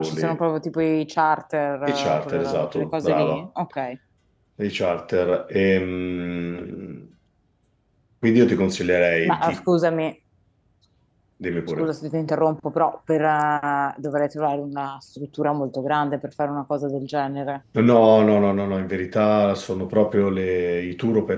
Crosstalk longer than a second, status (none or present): present